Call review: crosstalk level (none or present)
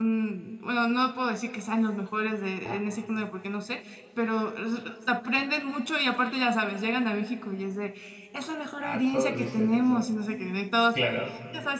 present